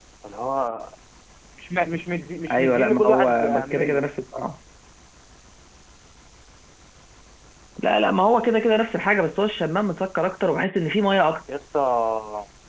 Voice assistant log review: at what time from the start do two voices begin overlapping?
2 s

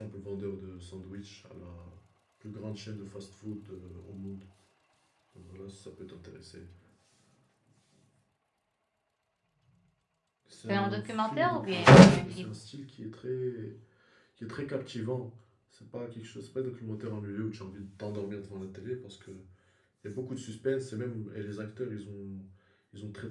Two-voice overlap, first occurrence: 11 s

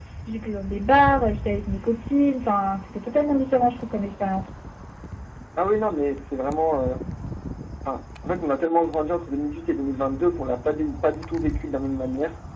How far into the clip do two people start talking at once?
none

